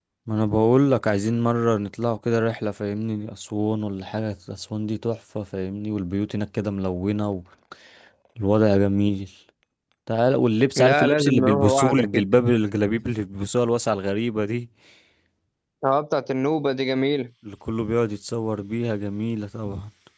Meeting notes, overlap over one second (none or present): present